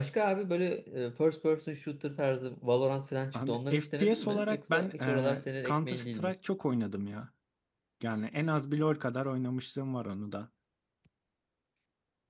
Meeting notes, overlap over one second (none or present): present